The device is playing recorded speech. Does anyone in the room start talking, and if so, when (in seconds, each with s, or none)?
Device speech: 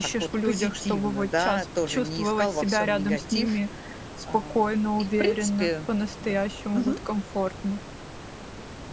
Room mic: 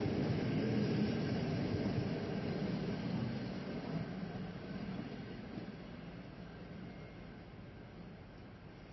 none